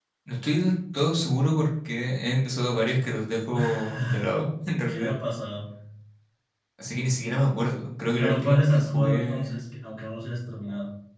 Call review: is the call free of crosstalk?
No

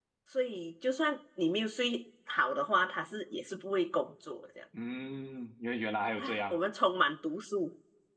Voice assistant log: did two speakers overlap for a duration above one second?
No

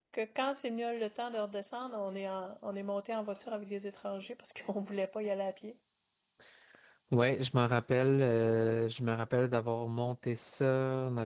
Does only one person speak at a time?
Yes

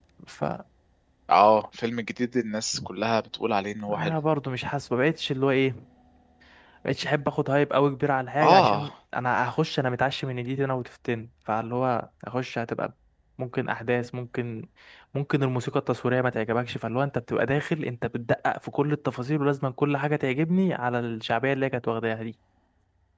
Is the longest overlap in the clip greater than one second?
No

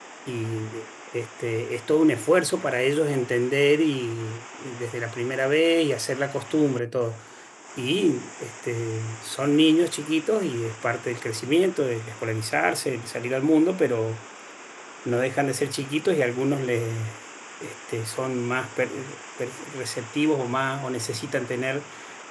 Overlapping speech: No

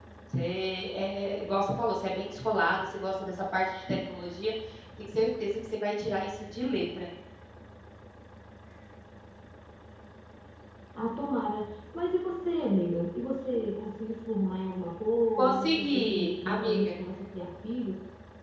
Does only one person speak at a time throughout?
No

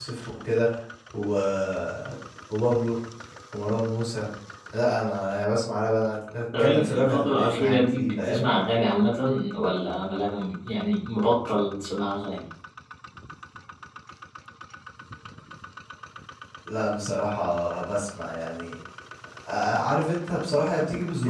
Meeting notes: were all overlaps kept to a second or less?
No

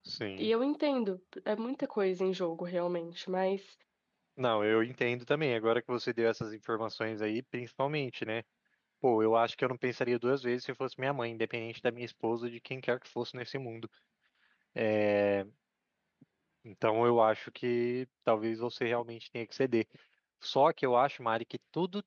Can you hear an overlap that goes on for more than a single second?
No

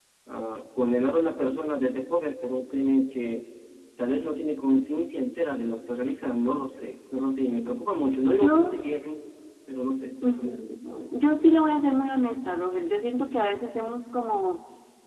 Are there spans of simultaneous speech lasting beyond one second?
No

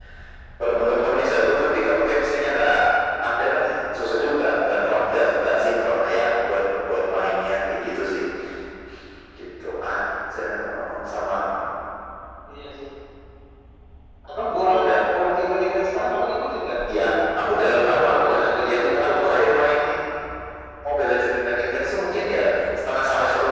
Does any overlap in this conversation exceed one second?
Yes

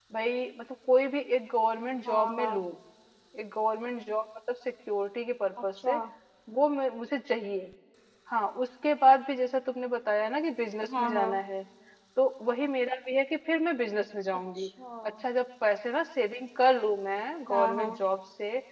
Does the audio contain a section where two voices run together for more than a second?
No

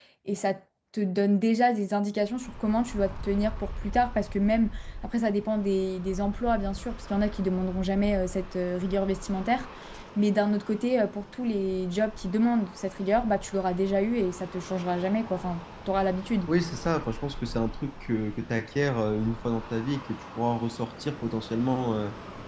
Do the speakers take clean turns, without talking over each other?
Yes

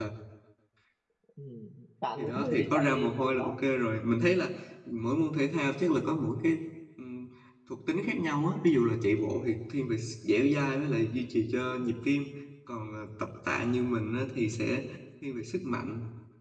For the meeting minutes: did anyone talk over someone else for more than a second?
Yes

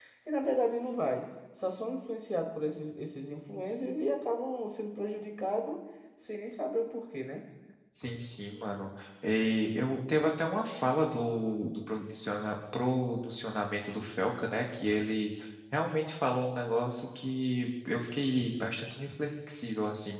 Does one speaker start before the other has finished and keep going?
No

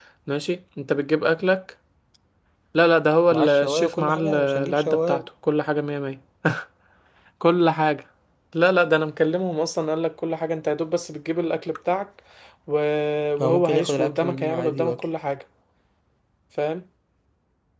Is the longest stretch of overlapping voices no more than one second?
No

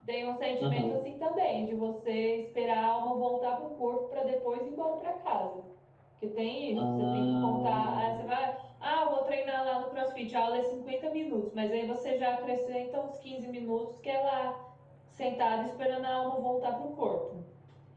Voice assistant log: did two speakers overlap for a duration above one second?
Yes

